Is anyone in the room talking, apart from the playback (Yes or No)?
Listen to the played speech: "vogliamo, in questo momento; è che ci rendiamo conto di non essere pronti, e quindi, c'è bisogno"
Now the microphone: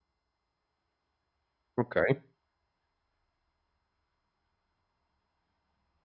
Yes